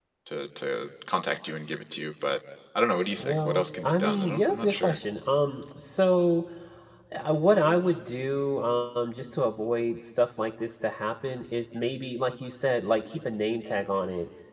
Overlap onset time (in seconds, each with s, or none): 3.2 s